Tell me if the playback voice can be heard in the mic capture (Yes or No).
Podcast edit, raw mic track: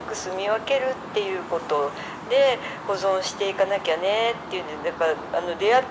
Yes